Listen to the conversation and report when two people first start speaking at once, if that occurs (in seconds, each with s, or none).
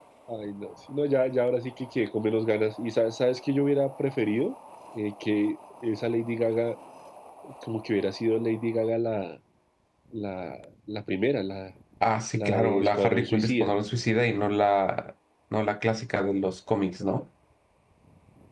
12.3 s